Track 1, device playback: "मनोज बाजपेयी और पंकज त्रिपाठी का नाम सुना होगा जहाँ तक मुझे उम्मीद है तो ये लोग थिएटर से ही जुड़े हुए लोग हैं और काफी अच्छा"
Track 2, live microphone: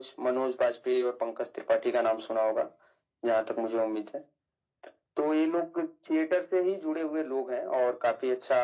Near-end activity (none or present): none